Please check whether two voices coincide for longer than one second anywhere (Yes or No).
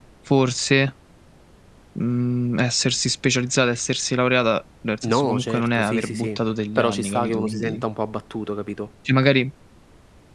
Yes